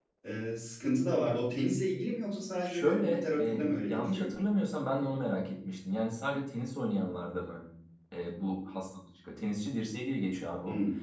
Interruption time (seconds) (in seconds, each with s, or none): 2.6 s